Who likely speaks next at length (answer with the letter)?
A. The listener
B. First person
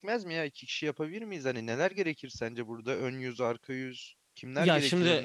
A